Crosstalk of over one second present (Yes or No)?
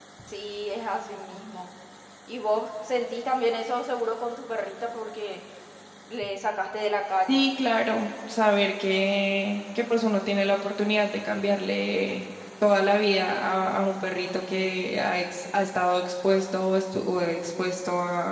No